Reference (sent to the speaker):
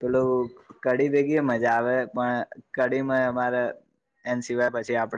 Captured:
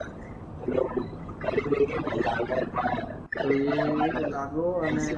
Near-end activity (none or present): present